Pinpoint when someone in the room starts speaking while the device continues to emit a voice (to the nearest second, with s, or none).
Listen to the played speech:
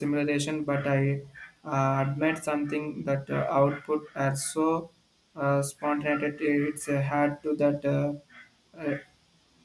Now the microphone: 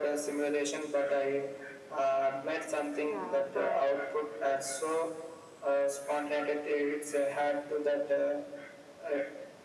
3 s